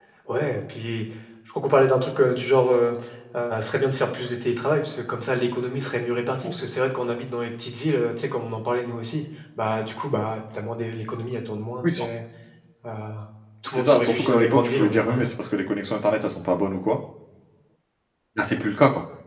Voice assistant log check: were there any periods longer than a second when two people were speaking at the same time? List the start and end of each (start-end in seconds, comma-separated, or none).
13.7-15.3